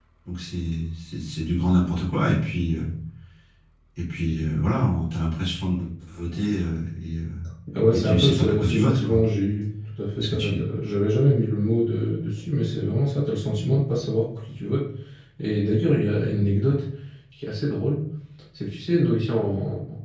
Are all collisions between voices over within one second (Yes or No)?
No